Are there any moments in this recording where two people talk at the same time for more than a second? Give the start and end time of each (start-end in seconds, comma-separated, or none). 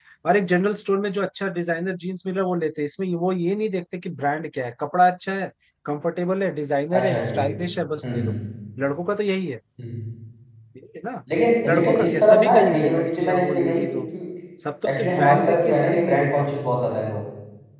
11.7-13.9, 14.9-16.5